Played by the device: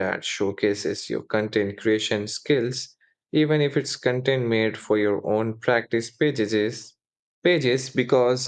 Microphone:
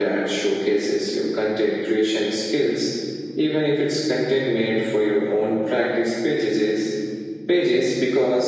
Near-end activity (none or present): none